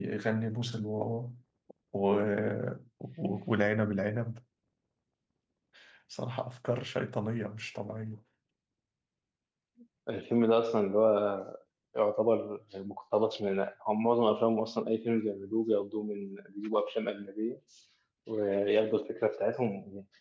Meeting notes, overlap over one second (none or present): none